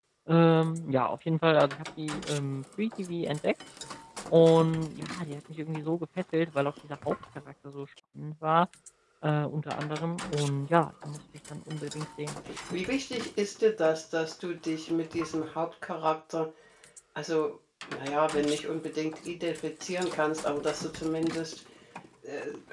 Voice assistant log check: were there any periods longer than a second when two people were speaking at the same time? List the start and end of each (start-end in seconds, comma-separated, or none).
none